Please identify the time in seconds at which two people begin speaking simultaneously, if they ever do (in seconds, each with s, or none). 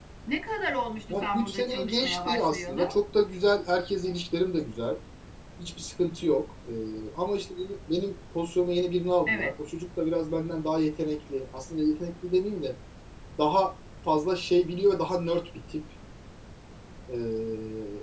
1.1 s